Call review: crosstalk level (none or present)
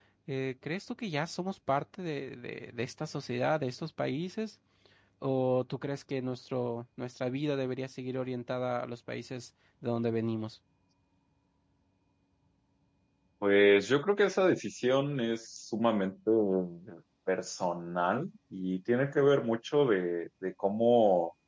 none